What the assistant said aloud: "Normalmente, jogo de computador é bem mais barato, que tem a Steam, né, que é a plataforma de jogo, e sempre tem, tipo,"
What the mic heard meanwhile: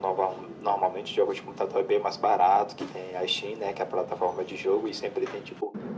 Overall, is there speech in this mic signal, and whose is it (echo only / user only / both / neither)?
echo only